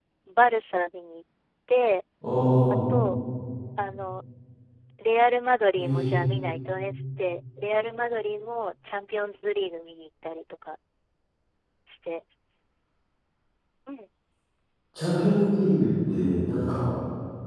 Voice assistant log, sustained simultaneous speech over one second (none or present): none